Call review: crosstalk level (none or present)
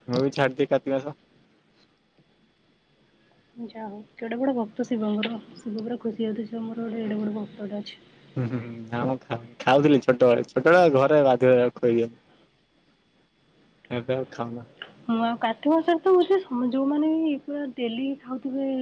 none